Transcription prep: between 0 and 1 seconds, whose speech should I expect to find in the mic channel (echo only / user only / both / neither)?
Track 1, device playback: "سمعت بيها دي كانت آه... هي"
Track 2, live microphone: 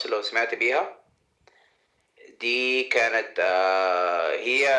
echo only